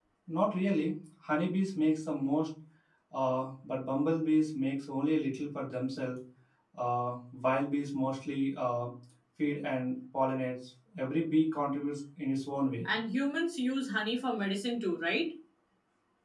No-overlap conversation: Yes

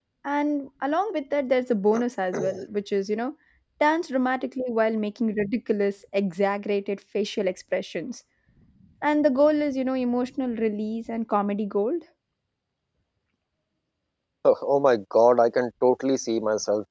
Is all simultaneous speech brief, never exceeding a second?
Yes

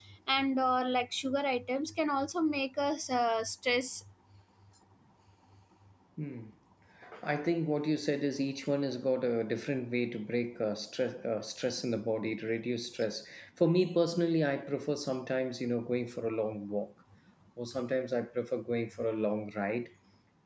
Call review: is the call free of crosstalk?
Yes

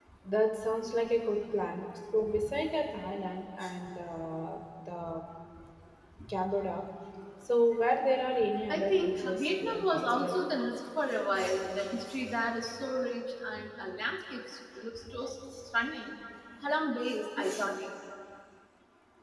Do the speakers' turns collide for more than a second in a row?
Yes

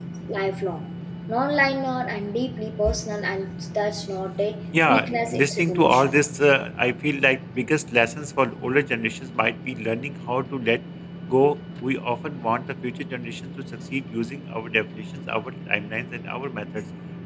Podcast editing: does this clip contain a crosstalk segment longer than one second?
Yes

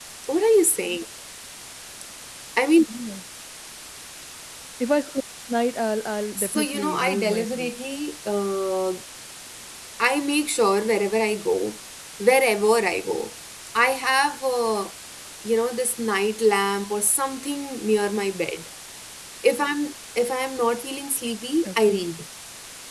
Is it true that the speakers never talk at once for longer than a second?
No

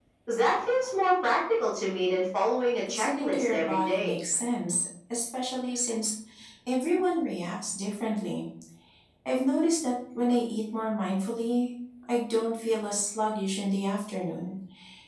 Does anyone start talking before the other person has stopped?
Yes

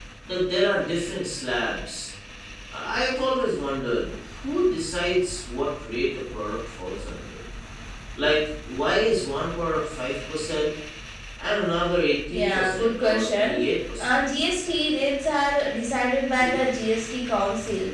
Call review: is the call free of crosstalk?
No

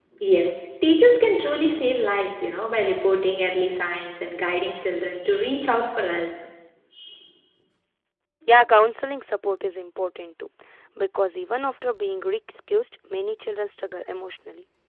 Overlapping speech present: No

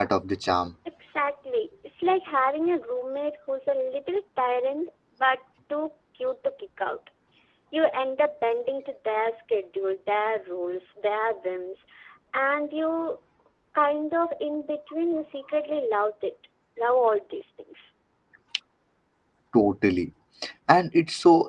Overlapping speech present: No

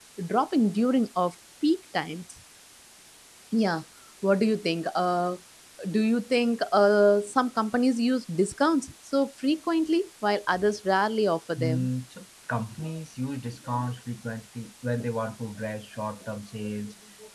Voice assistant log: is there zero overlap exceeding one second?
Yes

